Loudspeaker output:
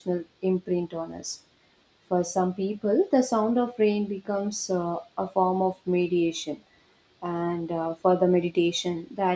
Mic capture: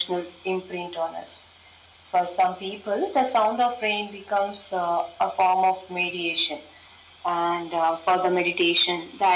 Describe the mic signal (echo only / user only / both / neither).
echo only